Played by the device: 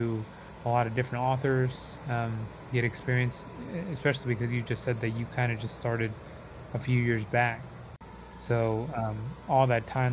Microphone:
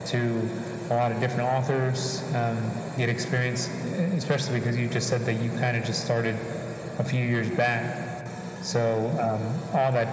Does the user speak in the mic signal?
No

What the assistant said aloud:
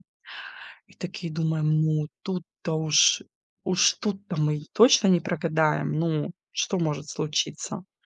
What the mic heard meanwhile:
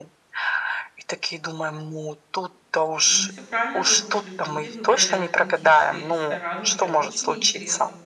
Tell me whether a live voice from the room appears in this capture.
Yes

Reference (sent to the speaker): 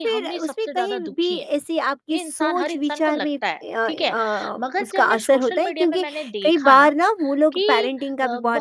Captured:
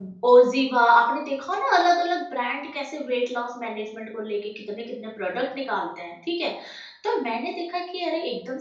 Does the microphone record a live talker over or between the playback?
Yes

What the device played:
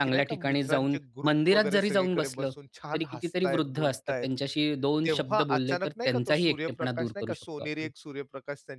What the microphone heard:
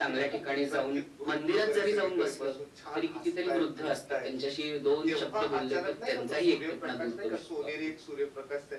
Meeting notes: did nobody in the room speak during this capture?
Yes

